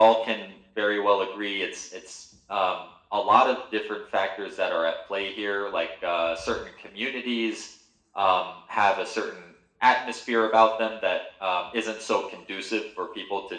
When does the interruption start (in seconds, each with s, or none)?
none